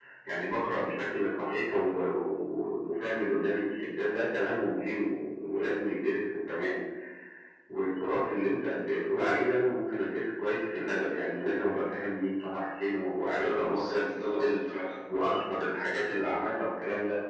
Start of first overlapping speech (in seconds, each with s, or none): 13.4 s